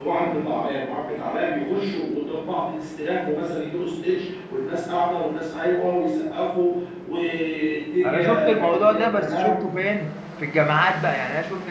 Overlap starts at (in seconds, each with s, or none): 8.0 s